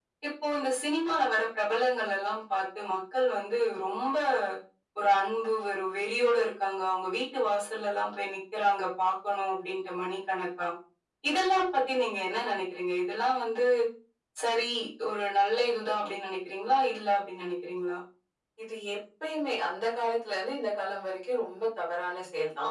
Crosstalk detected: No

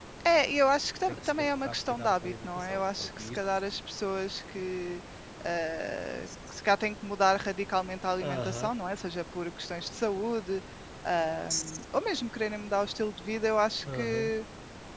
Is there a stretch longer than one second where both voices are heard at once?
Yes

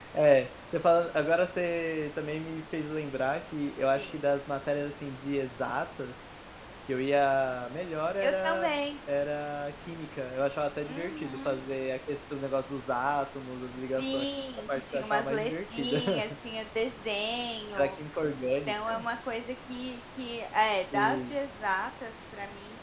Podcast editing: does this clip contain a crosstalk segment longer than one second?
Yes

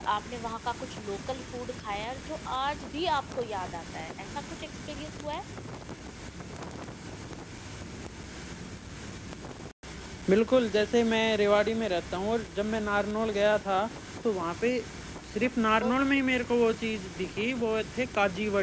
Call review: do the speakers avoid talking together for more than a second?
Yes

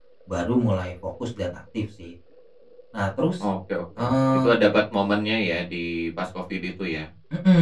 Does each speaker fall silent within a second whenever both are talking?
Yes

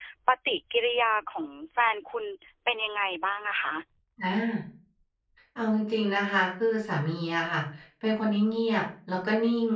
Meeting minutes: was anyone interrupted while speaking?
No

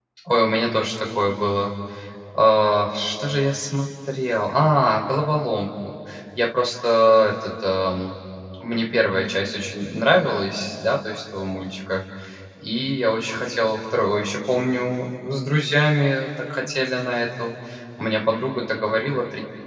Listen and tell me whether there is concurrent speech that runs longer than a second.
No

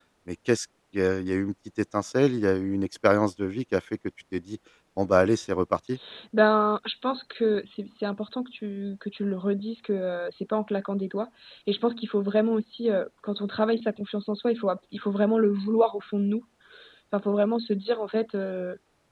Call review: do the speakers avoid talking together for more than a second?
Yes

